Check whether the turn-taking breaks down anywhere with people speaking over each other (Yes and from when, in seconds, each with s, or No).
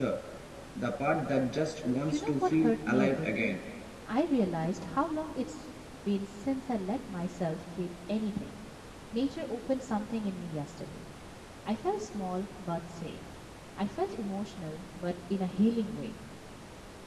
Yes, from 2.1 s